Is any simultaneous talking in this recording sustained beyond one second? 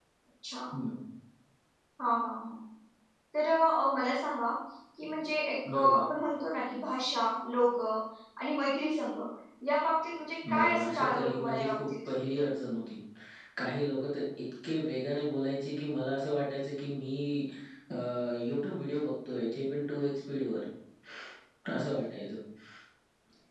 Yes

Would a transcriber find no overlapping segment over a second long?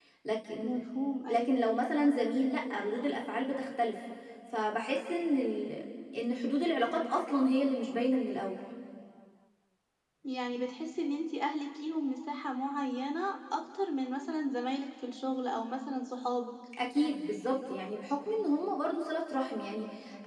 Yes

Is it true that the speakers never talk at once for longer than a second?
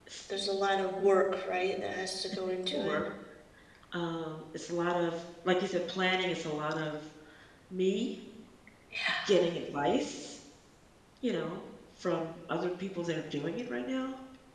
Yes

